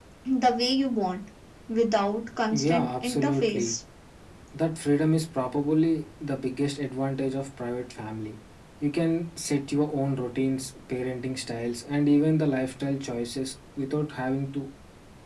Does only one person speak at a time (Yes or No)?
No